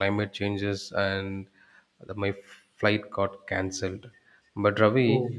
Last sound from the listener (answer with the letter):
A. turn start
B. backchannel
B